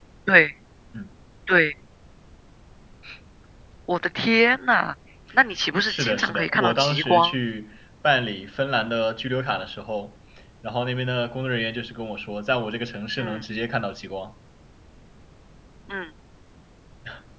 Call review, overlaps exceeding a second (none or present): present